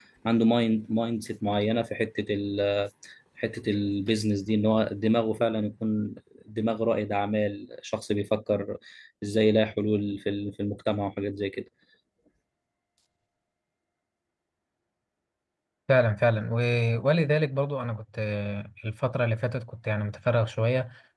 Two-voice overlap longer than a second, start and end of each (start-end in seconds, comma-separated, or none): none